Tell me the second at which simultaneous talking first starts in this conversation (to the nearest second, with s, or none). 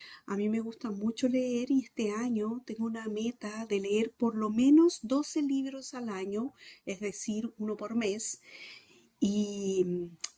none